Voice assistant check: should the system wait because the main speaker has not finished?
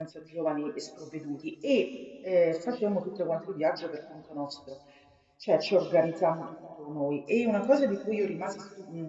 Yes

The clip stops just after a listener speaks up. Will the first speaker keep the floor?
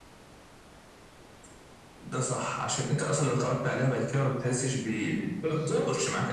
No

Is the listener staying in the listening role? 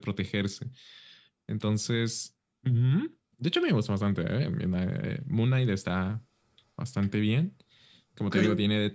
Yes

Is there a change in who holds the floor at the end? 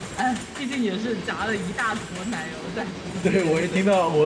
Yes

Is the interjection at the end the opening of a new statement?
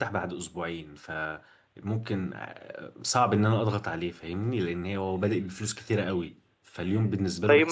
Yes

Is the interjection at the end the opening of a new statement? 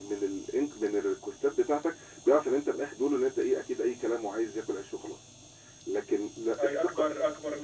Yes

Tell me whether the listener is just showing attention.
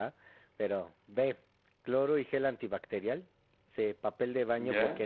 Yes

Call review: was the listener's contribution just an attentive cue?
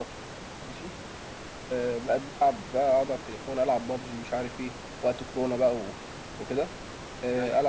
Yes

